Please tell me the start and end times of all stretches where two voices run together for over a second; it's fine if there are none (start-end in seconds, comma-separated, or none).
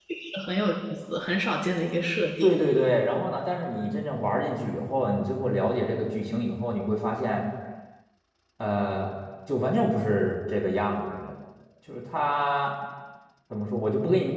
none